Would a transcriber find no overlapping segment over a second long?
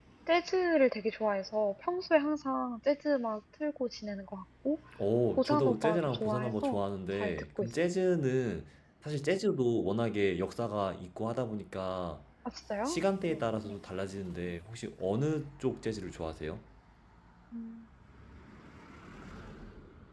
No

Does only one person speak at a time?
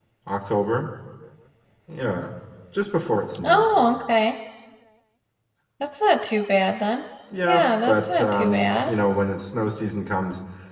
No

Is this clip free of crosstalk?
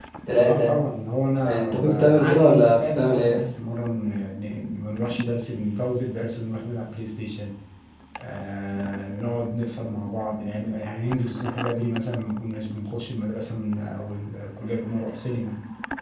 No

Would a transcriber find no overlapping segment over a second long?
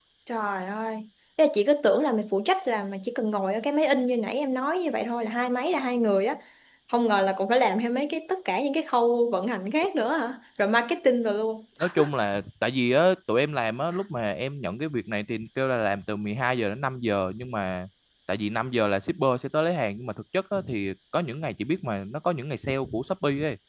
Yes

